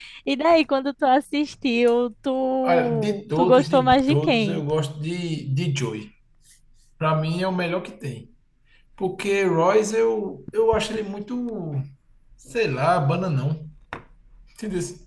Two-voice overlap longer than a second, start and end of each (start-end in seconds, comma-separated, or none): 2.6-4.6